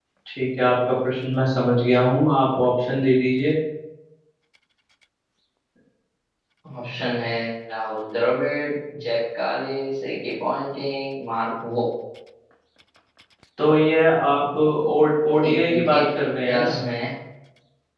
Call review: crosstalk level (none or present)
present